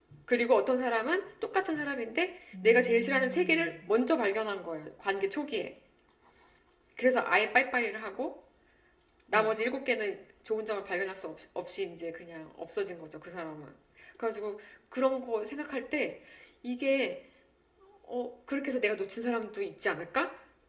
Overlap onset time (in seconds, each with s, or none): 2.5 s